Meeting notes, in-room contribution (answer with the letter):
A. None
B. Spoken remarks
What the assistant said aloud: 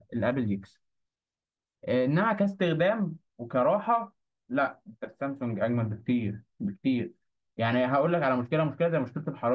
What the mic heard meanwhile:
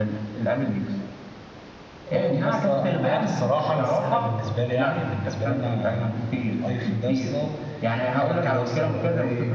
B